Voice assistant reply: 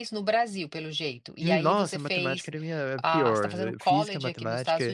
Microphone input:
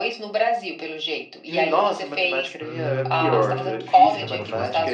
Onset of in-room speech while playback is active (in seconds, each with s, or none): 2.6 s